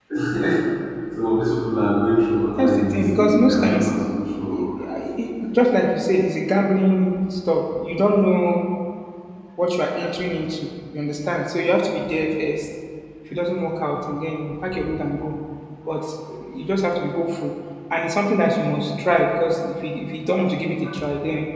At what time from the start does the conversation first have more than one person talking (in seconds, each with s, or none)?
2.6 s